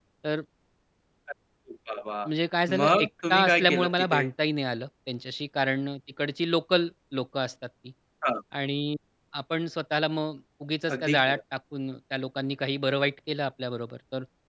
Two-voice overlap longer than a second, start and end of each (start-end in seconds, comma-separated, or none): 2.8-4.3